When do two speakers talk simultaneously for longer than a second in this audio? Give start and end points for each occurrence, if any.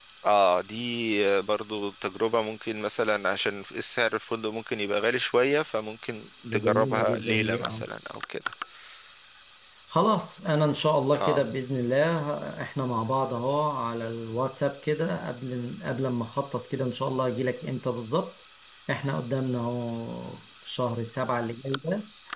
6.5-7.8

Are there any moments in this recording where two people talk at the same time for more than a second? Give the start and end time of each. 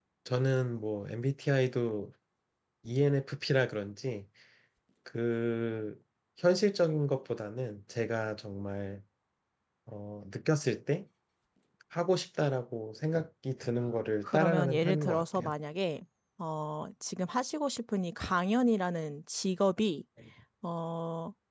14.2-15.5

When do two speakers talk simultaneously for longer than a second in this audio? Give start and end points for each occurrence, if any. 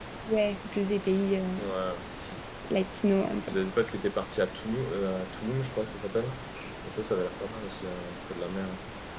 none

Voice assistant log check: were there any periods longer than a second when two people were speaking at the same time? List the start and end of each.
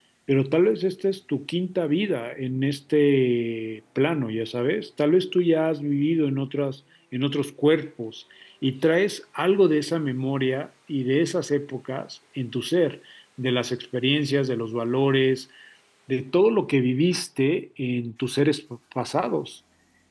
none

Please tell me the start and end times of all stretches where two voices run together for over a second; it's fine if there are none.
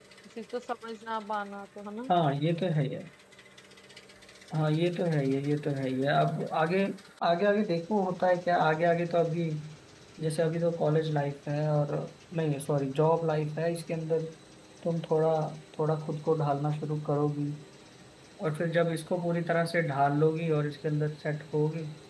none

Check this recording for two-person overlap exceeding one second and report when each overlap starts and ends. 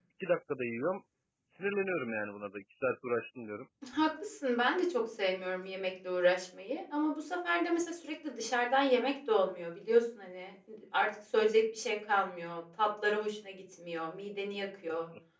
none

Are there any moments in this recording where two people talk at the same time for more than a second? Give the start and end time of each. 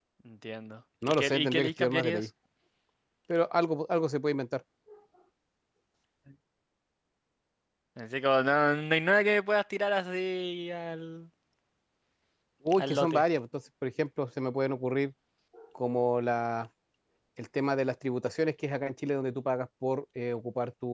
1.1-2.3

